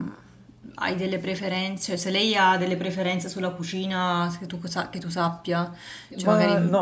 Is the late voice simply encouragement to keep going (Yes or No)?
No